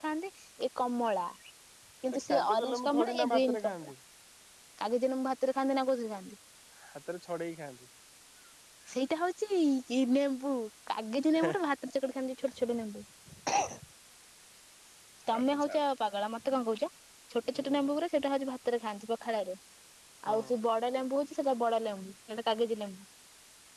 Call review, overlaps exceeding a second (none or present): present